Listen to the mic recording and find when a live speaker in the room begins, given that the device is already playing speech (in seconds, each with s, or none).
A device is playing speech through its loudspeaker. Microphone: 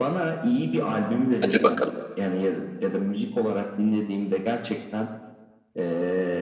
1.4 s